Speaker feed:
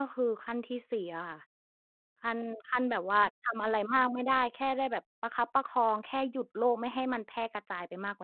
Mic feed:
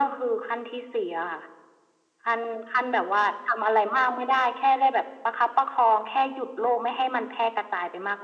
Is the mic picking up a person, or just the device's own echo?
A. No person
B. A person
A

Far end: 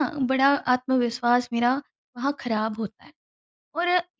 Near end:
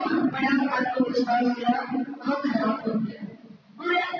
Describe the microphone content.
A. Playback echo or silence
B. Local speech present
A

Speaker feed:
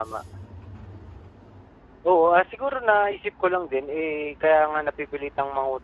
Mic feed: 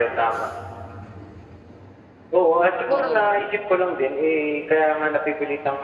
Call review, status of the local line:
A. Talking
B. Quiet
A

